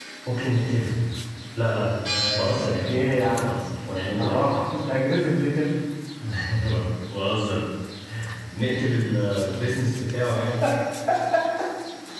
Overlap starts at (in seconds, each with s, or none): 2.1 s